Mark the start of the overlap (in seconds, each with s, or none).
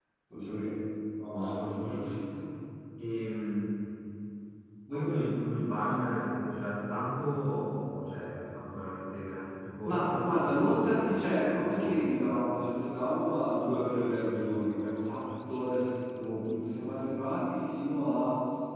9.8 s